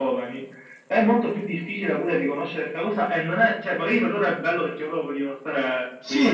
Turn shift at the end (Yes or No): Yes